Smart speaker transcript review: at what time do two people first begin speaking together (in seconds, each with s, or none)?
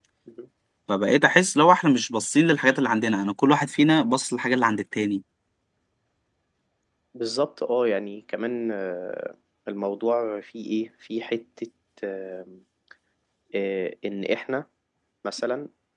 none